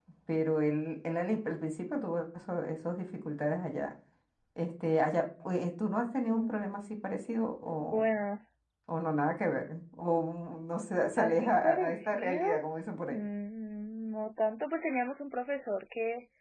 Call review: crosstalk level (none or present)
present